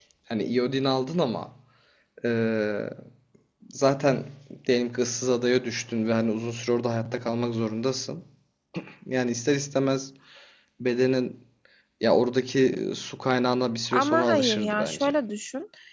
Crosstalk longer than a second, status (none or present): present